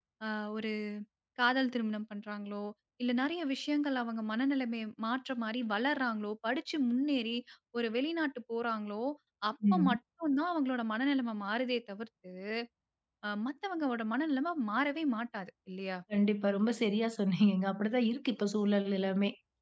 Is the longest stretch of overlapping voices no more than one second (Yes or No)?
Yes